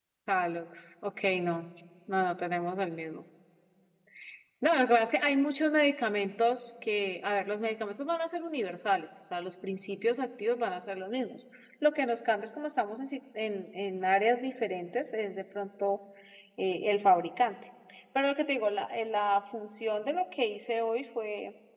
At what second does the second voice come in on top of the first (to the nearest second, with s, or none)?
none